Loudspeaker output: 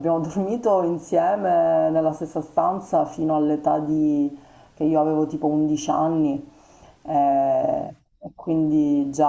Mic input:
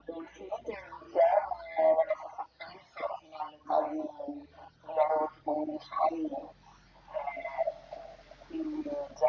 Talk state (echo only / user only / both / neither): echo only